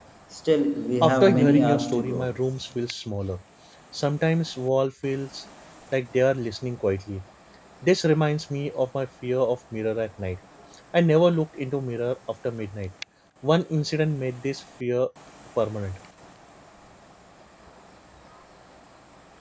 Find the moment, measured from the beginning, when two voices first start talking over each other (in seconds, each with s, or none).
1.0 s